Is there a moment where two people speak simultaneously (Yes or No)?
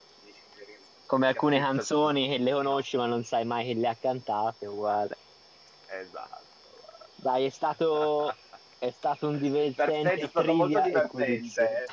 Yes